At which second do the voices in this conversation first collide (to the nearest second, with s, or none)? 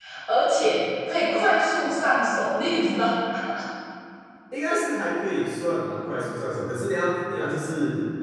none